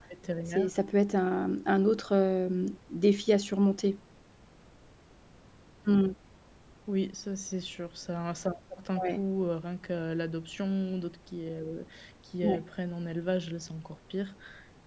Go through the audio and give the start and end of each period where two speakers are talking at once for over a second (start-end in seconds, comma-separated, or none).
none